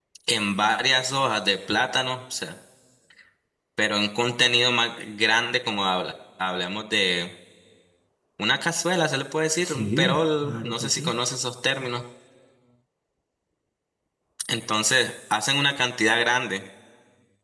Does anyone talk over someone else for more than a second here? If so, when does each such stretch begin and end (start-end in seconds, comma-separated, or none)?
9.7-11.2